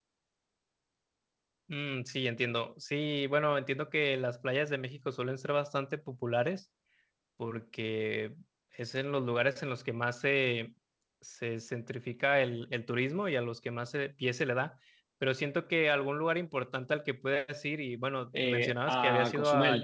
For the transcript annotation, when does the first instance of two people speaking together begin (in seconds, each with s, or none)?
18.3 s